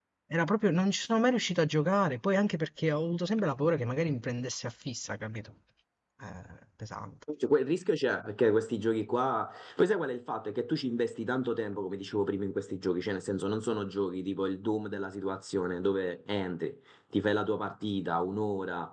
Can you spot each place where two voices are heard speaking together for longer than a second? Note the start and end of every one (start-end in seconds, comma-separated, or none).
none